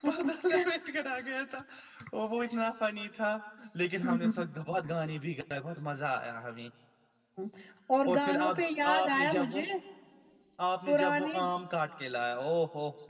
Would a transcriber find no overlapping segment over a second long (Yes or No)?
No